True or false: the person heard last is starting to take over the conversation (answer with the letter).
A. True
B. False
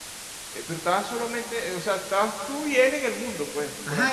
A